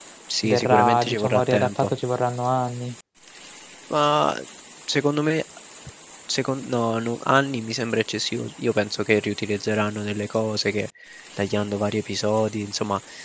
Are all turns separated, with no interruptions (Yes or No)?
No